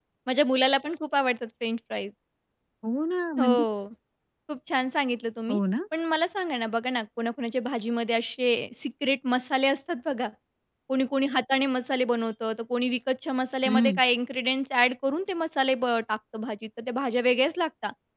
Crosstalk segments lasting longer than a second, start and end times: none

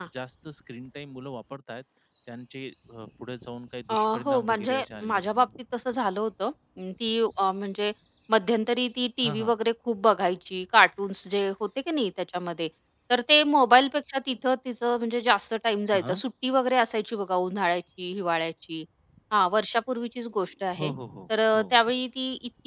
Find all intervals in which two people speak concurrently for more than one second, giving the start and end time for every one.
3.9-5.5

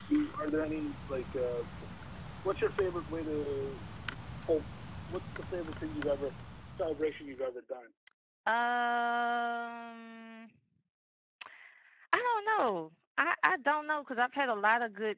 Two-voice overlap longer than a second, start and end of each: none

